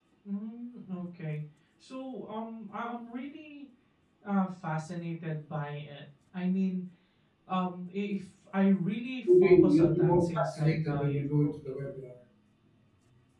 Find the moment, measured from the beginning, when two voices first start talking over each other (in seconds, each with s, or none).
9.3 s